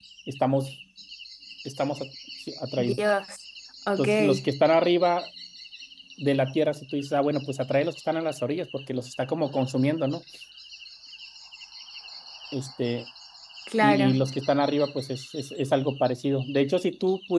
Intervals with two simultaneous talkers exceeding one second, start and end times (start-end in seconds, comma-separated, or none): none